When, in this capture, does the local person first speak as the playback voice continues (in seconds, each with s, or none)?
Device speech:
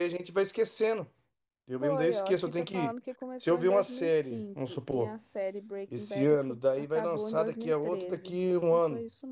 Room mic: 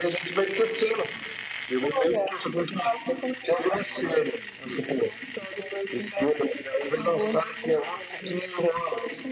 none